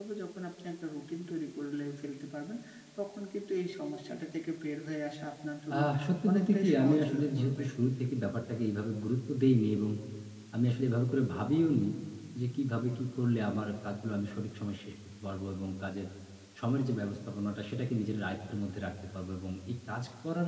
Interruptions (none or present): present